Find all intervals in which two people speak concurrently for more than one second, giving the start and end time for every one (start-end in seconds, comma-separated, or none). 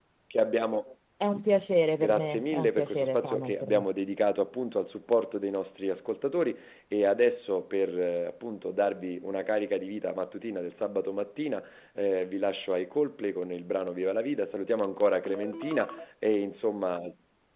2.0-3.8